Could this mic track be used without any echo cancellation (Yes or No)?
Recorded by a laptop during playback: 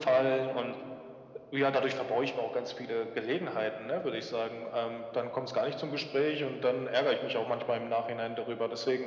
No